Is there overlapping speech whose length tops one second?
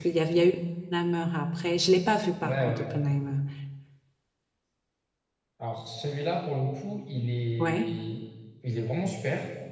No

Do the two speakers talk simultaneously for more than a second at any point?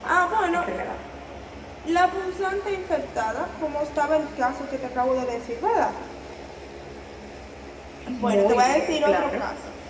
Yes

